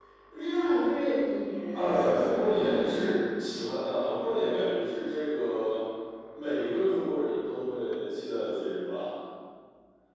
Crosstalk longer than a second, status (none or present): present